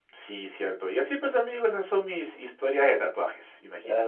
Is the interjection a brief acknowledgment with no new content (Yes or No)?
No